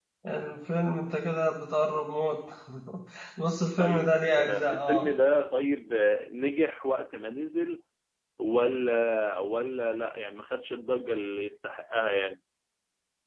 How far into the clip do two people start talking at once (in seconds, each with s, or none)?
3.8 s